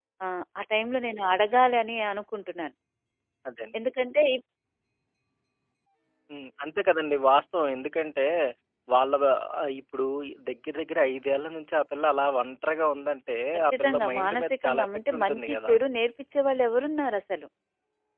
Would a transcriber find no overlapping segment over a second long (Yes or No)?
No